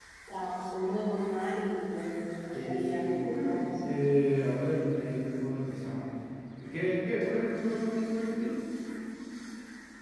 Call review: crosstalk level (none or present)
present